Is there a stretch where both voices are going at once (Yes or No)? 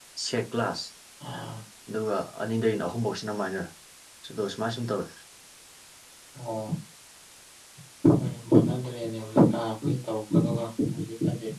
No